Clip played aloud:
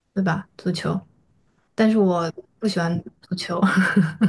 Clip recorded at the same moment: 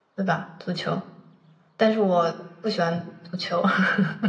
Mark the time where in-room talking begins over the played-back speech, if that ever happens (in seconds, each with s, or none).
none